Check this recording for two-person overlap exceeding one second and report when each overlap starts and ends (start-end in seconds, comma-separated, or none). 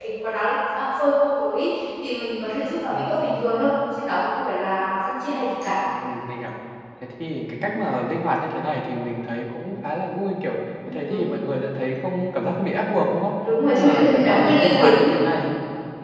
13.7-15.1